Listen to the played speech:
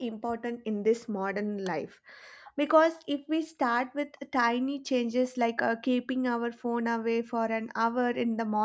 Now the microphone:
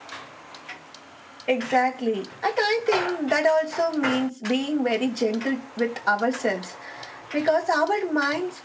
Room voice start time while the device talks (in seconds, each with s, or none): 1.4 s